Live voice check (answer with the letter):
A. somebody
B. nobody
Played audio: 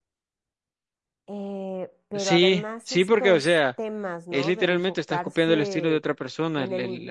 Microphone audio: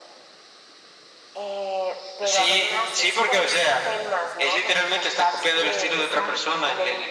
A